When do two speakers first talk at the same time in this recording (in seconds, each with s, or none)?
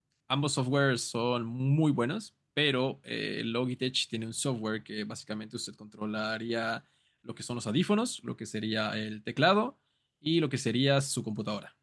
none